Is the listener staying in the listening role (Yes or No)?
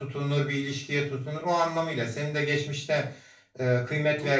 Yes